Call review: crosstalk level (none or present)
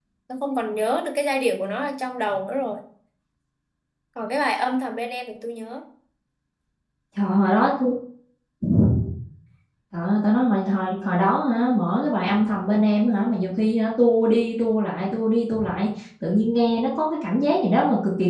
none